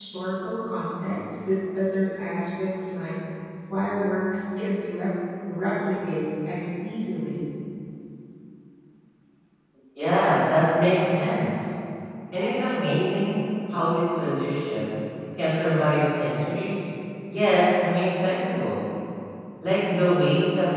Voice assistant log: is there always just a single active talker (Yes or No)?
Yes